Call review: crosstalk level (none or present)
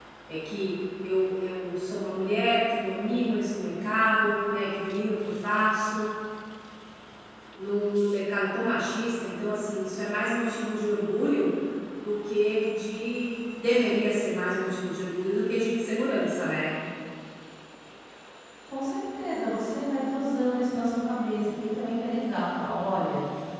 none